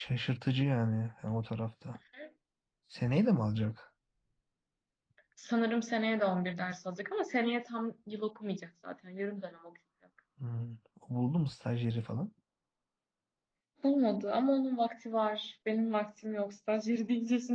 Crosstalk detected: No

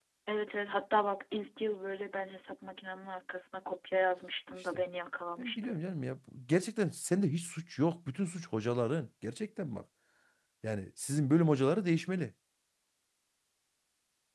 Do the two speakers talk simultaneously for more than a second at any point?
No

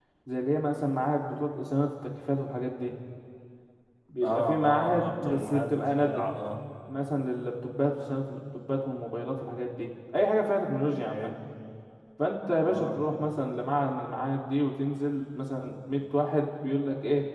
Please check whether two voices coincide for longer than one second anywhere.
Yes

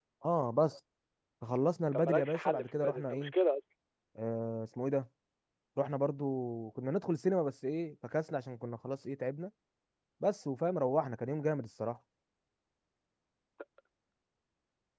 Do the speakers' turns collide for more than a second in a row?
Yes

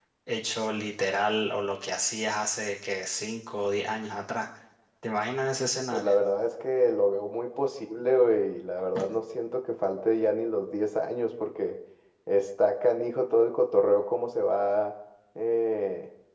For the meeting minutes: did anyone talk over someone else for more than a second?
No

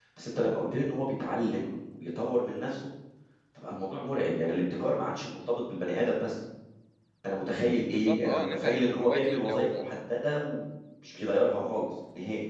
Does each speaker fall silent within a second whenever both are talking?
No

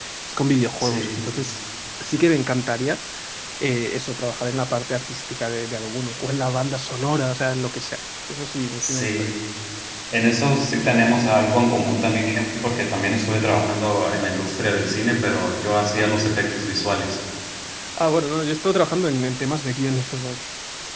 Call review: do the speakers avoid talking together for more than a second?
Yes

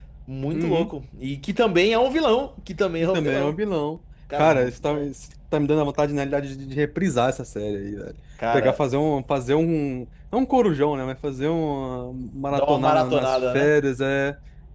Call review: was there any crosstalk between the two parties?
Yes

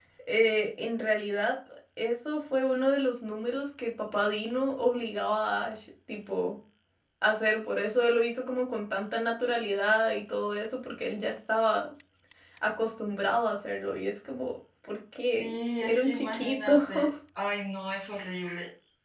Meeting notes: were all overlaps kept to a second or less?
No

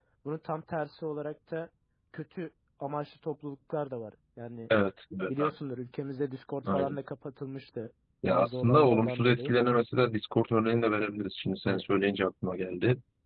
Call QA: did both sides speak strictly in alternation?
No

